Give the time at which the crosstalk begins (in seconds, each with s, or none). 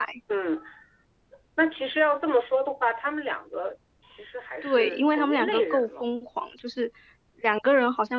4.6 s